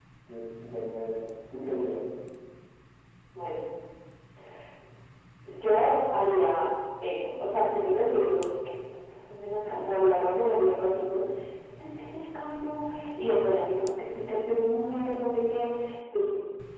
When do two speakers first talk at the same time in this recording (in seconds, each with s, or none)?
none